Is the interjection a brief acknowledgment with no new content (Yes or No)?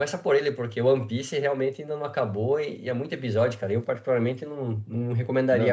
No